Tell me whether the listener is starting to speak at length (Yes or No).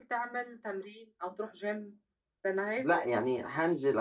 Yes